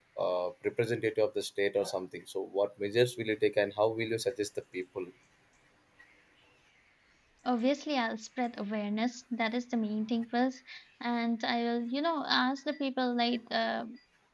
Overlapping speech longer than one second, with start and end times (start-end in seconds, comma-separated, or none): none